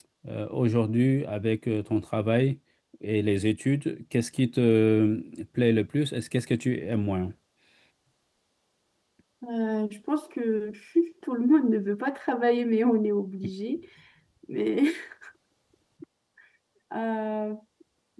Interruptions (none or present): none